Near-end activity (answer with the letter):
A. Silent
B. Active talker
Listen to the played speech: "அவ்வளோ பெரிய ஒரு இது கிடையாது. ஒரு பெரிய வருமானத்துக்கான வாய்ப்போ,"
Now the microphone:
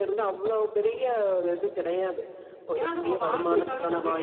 B